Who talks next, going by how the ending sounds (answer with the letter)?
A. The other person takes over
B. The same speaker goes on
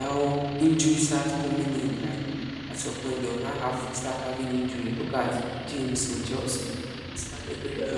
B